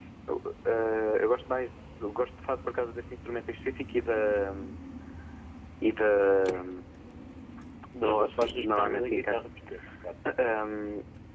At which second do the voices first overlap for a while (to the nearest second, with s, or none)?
8 s